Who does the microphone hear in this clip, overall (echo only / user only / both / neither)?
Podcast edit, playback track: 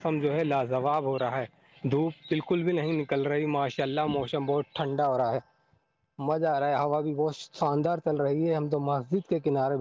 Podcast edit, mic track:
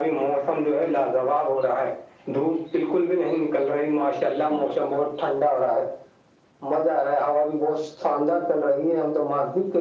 echo only